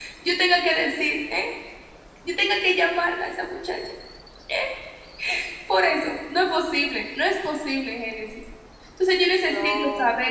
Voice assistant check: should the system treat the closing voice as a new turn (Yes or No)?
No